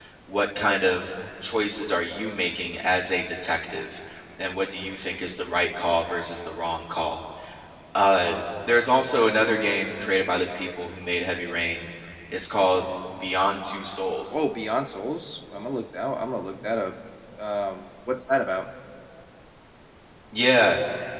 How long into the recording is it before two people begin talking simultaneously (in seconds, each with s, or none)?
none